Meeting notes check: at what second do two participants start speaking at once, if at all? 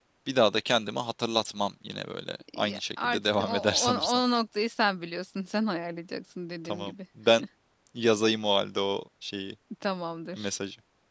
2.6 s

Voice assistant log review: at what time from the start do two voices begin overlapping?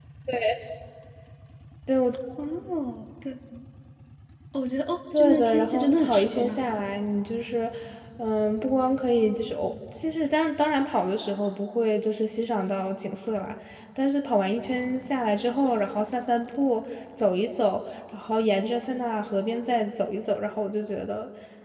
5.2 s

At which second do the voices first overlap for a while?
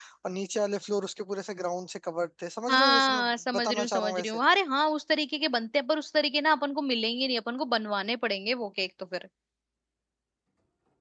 2.7 s

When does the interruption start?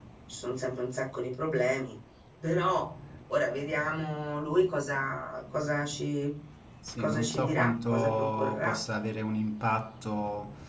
7.0 s

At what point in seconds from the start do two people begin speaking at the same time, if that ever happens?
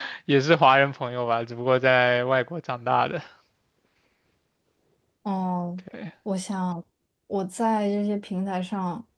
none

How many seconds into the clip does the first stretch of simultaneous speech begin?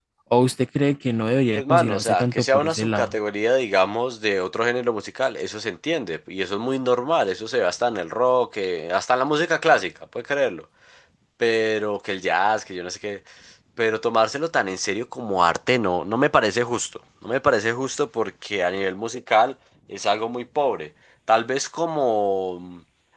1.6 s

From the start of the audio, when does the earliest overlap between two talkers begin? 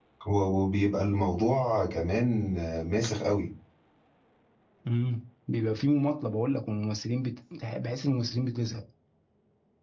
none

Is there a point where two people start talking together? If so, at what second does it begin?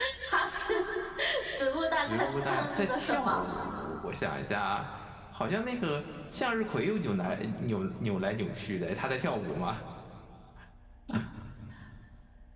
2.0 s

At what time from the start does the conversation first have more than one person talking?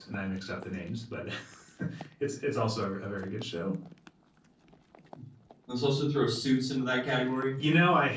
none

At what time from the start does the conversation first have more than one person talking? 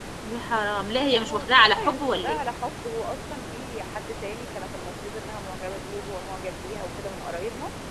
1.0 s

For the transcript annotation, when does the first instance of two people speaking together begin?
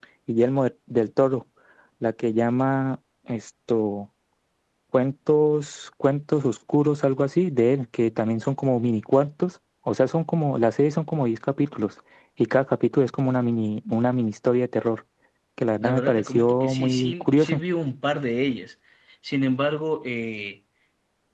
15.8 s

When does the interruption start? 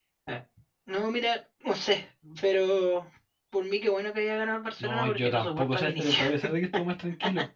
4.8 s

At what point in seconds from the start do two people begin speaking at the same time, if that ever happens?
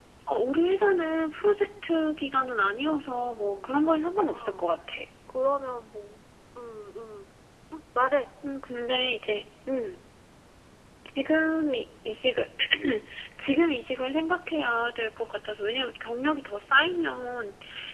2.8 s

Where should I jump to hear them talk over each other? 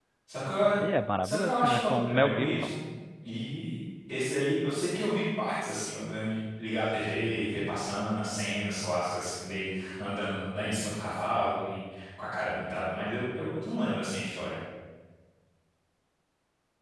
1.2 s

